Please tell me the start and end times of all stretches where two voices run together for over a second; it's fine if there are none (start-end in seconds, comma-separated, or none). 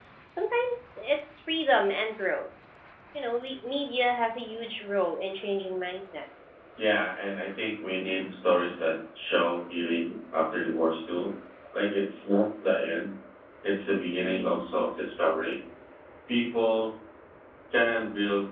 none